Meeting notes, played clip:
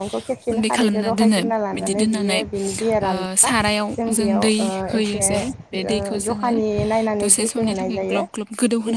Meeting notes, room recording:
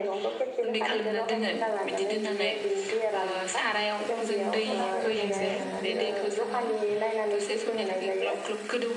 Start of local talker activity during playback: 4.7 s

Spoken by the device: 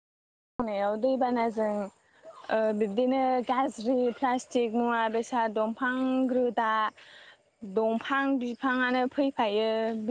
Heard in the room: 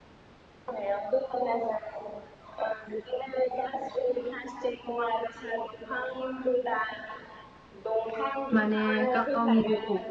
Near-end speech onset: 8.6 s

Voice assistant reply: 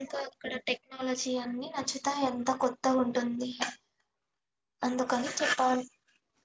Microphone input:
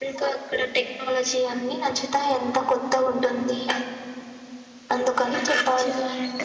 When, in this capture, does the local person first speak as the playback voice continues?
5.5 s

